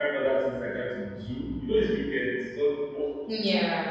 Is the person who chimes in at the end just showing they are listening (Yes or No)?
Yes